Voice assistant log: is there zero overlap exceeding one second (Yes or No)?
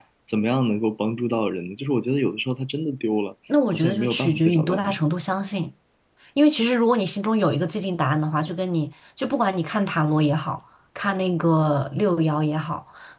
No